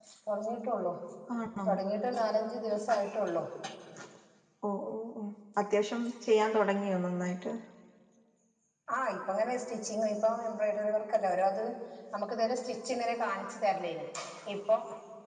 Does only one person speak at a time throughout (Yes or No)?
Yes